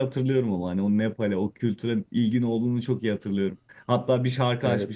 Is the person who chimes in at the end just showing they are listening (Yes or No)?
Yes